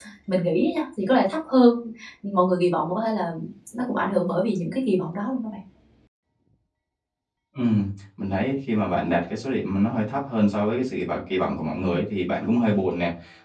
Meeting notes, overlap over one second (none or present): none